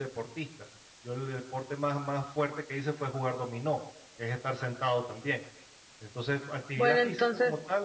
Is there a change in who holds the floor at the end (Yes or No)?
No